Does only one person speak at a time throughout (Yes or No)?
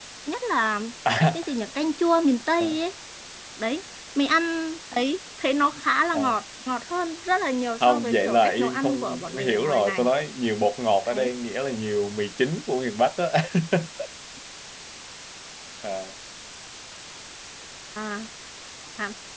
No